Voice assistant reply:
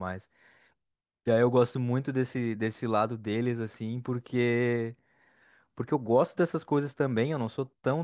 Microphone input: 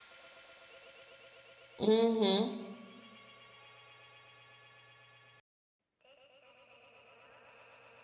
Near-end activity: present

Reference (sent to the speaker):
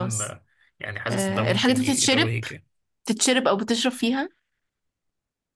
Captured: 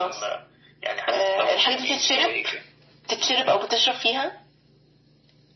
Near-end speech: none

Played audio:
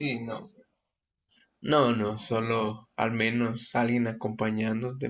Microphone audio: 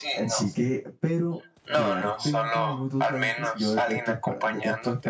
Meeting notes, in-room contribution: present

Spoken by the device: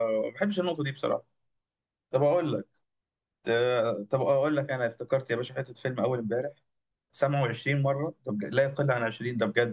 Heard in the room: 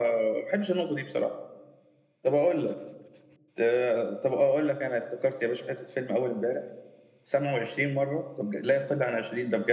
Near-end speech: none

